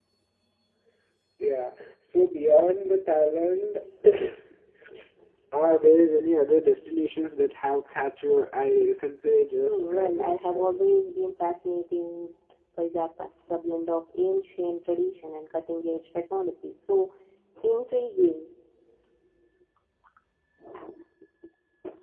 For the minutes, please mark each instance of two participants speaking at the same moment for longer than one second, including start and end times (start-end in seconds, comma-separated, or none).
9.6-10.8